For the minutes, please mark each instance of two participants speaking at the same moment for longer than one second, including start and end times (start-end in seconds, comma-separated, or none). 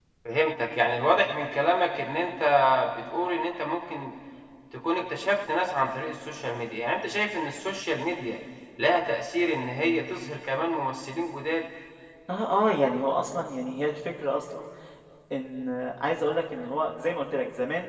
none